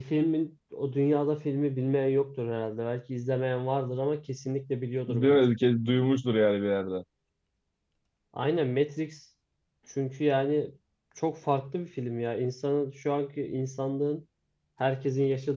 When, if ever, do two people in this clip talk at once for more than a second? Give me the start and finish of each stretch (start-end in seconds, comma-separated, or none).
none